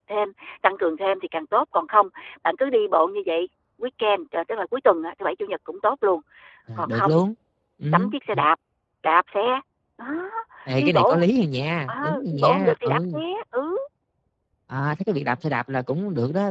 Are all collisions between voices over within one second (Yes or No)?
No